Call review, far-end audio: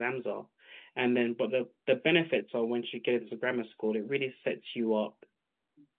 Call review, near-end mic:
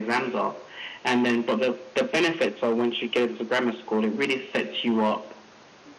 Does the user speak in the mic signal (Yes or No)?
No